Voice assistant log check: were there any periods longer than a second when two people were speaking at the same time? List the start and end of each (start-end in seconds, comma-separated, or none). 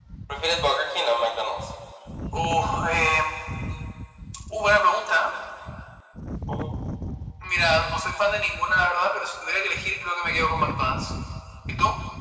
none